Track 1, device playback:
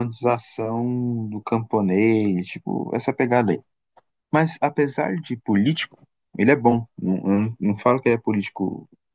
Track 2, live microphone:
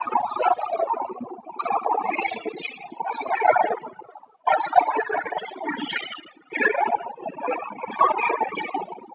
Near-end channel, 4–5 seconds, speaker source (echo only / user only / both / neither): echo only